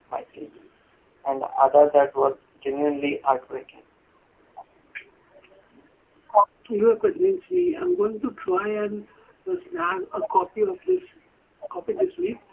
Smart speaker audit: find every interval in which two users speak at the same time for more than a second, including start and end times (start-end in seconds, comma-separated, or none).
none